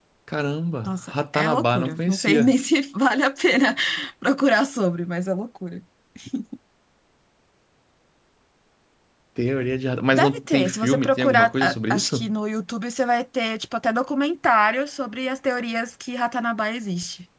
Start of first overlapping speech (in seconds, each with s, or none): 0.8 s